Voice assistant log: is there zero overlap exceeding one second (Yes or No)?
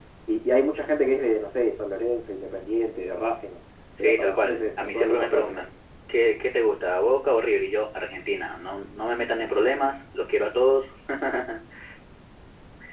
No